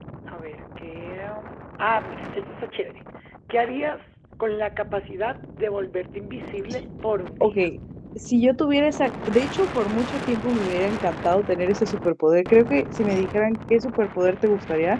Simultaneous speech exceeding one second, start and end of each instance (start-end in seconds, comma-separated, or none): none